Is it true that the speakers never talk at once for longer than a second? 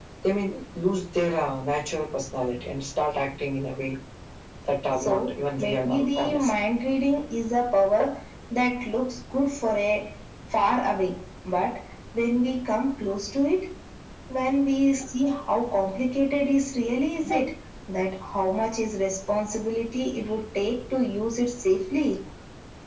No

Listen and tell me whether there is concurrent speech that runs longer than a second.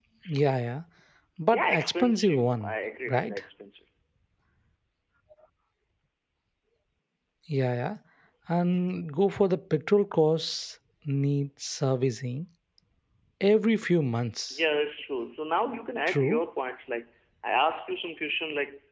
Yes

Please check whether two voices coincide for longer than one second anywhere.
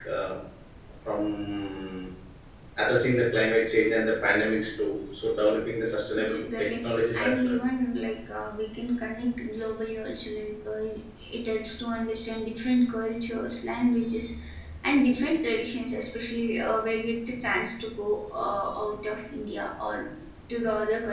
Yes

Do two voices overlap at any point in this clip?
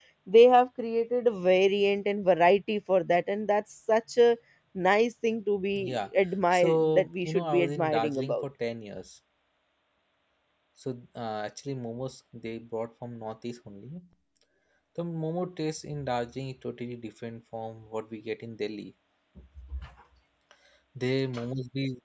Yes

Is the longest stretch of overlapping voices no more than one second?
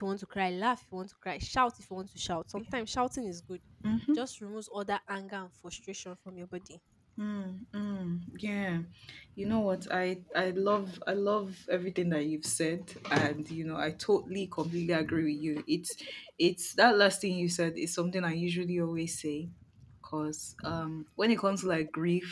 Yes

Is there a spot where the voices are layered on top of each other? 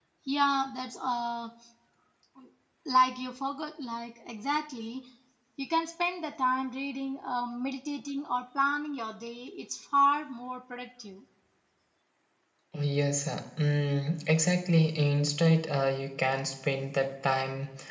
No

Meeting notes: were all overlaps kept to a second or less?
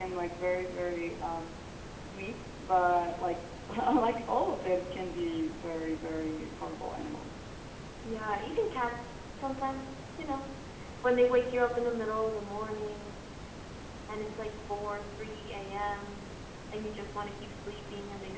Yes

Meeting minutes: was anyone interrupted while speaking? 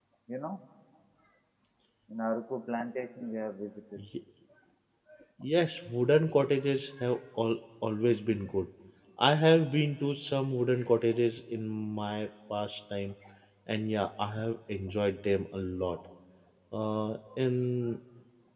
No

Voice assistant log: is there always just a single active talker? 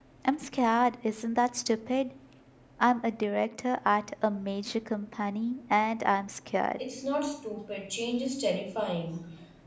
Yes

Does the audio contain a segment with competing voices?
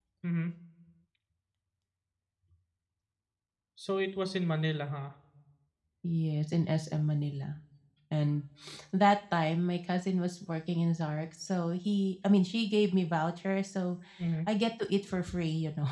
No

